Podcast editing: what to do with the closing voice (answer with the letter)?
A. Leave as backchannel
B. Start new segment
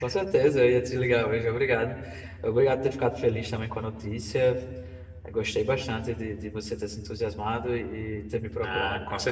B